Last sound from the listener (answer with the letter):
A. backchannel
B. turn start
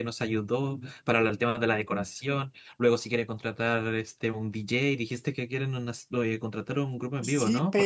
B